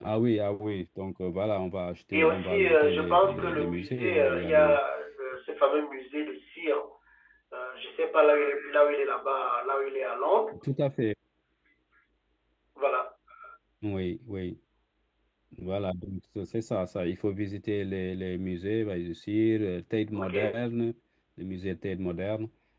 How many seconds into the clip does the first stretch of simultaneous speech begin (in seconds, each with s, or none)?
2.1 s